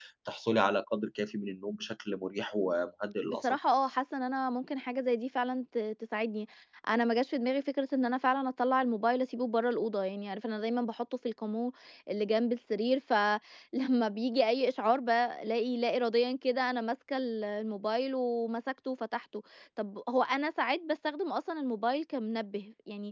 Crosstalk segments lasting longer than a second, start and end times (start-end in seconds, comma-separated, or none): none